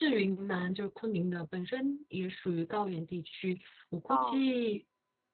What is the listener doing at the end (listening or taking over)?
listening